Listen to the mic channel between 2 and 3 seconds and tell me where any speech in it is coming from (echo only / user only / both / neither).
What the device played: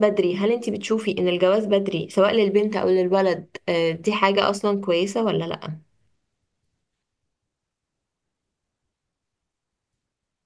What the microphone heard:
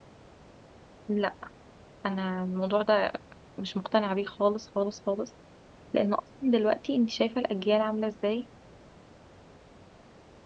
user only